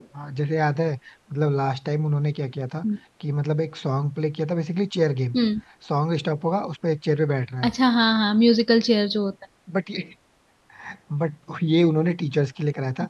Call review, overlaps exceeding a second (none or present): none